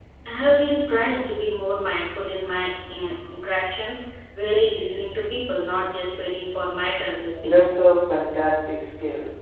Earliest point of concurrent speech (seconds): none

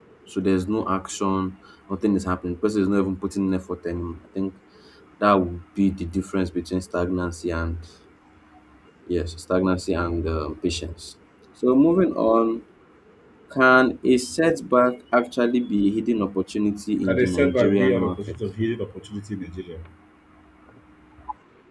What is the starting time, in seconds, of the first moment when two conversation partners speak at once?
17.0 s

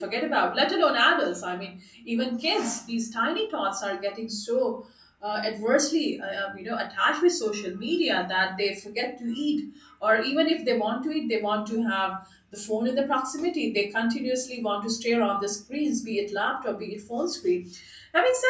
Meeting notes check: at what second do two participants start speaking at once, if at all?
none

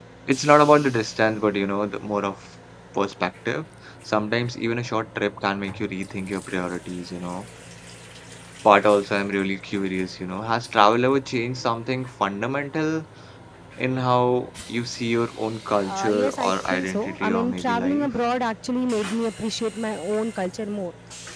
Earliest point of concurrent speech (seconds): 15.8 s

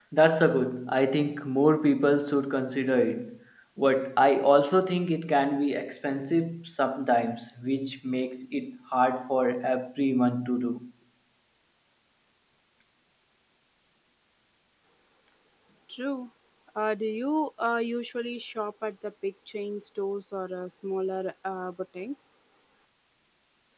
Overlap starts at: none

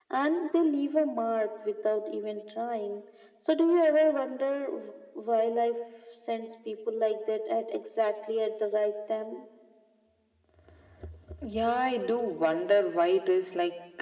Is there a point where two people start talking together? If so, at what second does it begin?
none

